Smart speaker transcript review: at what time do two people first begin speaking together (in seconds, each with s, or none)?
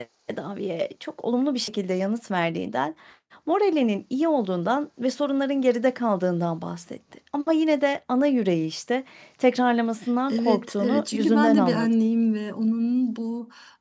10.3 s